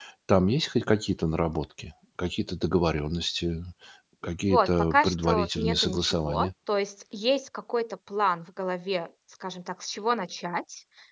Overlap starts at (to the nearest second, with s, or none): 4 s